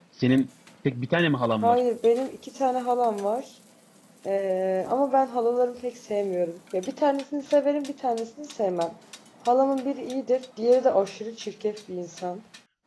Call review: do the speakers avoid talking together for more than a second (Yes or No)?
Yes